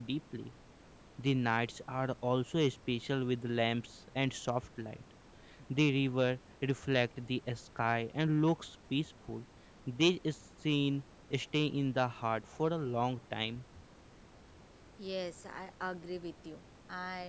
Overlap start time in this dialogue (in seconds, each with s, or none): none